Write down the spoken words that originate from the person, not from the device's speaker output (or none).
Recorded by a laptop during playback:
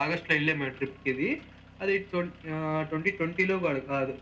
none